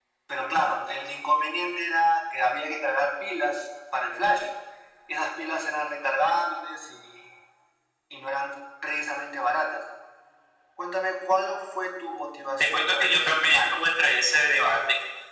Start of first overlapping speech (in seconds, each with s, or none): 12.6 s